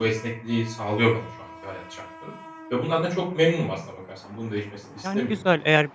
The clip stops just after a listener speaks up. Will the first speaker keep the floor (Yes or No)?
No